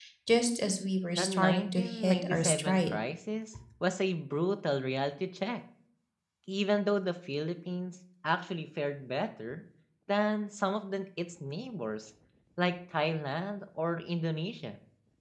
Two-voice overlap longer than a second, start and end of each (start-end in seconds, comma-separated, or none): 1.2-3.0